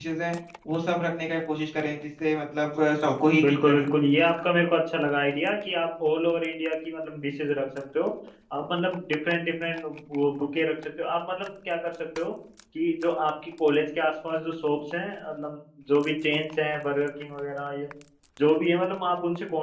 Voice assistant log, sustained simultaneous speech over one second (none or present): none